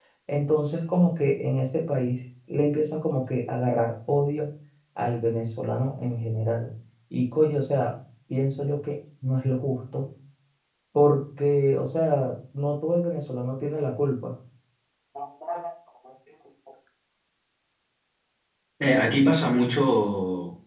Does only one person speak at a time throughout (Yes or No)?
Yes